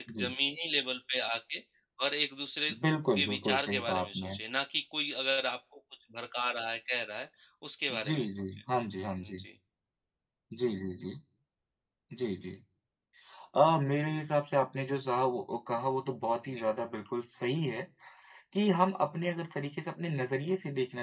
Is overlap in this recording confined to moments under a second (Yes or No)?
No